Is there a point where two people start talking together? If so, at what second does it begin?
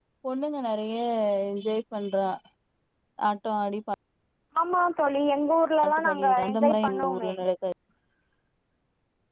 5.8 s

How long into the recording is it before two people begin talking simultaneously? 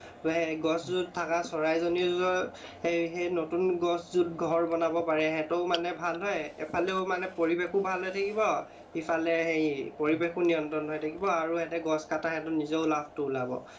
none

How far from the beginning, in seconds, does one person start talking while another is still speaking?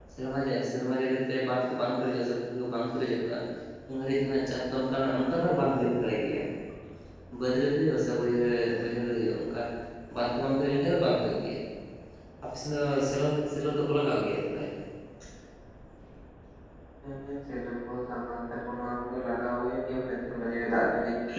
none

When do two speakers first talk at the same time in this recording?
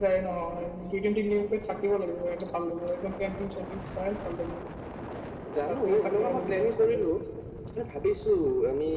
5.7 s

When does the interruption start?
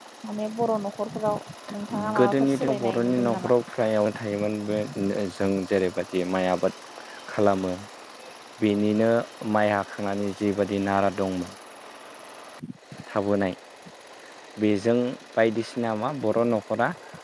2.2 s

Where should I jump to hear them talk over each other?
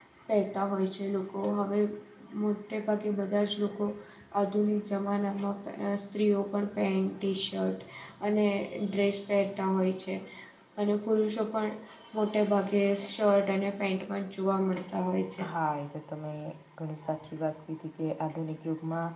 none

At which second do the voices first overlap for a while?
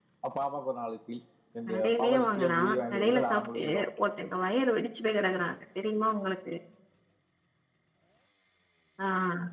1.7 s

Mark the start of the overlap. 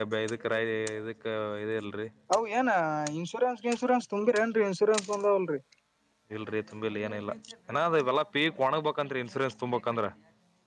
none

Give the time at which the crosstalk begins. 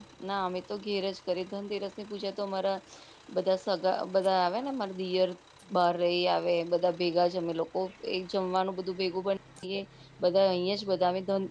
none

